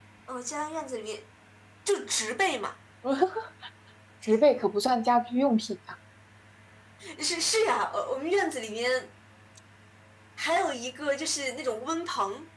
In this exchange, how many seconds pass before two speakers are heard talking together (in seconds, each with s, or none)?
none